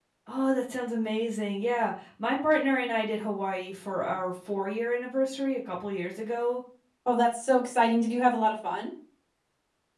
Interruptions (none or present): none